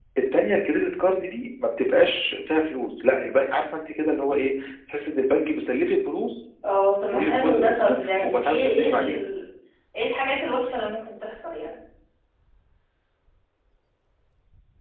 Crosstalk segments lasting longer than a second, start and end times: 7.1-9.2

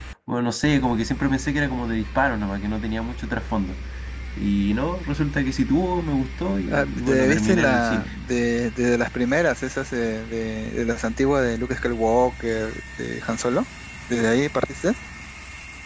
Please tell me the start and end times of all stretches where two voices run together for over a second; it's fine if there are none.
6.7-8.1

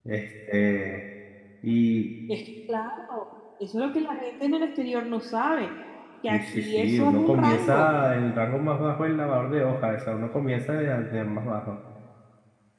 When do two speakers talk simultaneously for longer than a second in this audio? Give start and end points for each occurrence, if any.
6.3-7.9

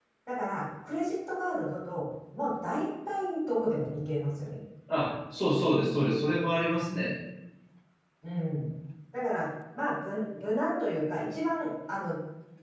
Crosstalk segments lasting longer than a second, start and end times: none

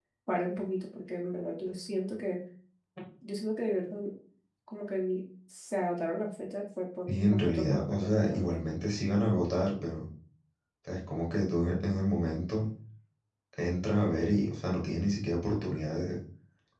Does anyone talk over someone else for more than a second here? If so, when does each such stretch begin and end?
7.1-8.5

